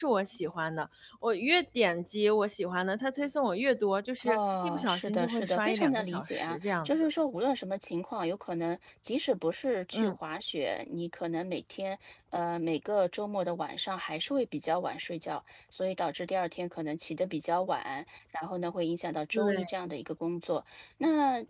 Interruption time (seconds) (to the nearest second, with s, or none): 4 s